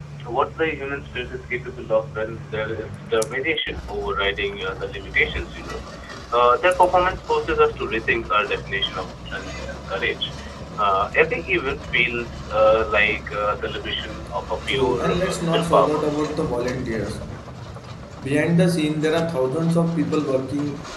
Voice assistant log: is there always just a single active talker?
No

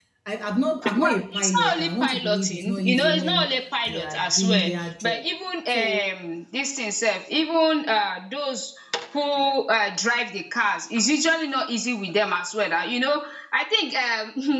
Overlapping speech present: Yes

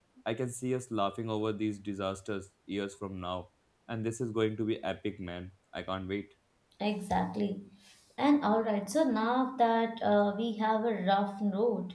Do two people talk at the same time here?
No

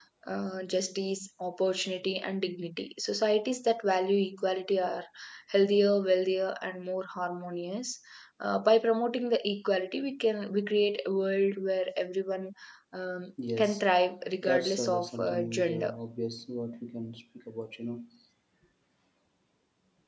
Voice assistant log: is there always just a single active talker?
No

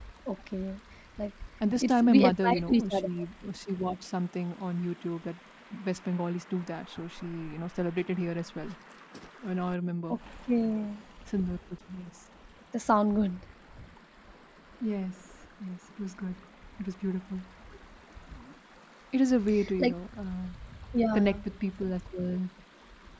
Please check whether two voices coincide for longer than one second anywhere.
Yes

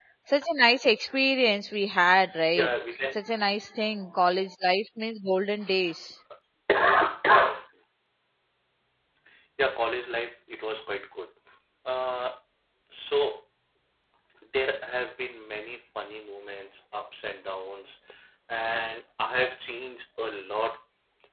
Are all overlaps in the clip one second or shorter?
Yes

